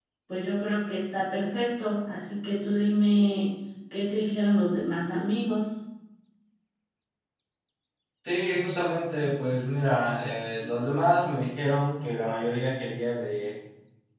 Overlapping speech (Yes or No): No